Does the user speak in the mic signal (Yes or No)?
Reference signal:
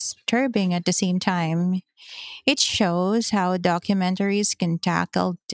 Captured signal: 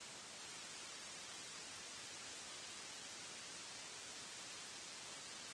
No